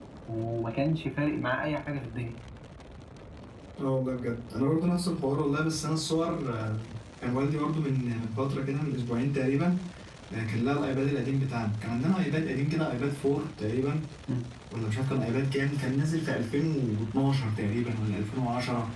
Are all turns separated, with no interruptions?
Yes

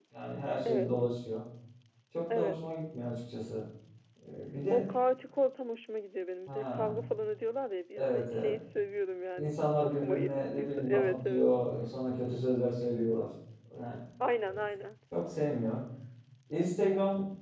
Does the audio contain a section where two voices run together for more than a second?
Yes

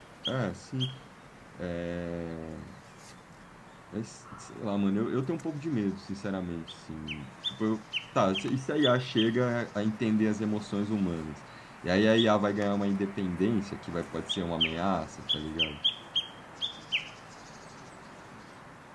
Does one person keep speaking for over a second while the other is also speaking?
No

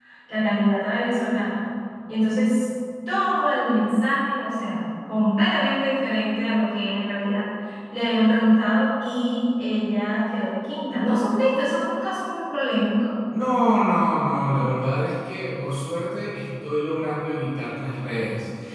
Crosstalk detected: No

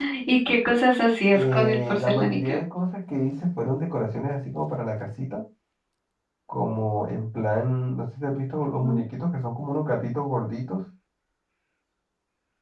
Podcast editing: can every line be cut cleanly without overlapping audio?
No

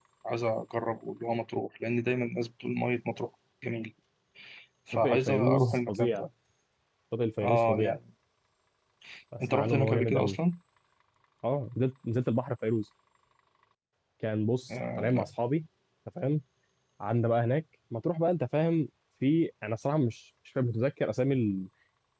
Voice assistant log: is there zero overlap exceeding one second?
No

